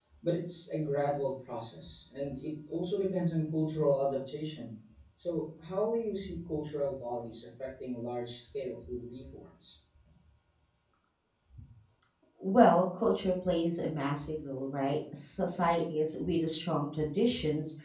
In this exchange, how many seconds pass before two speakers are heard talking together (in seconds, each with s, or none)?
none